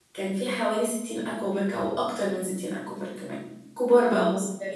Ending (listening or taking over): listening